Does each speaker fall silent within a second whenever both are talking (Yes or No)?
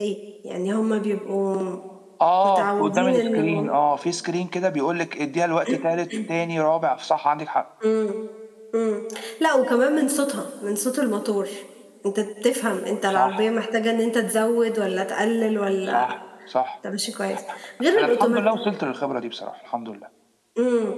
No